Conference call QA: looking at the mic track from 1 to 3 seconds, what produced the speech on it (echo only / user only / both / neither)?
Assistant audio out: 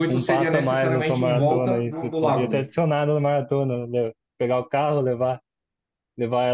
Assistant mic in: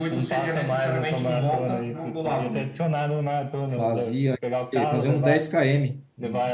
echo only